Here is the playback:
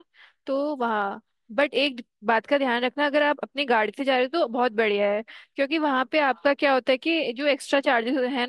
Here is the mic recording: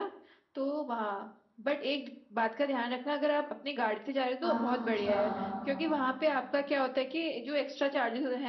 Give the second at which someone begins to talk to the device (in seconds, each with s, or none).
4.4 s